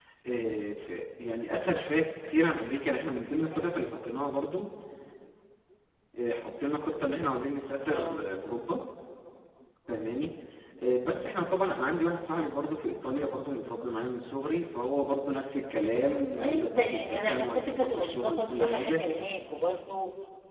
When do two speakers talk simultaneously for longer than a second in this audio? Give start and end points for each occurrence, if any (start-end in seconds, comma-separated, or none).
16.4-19.0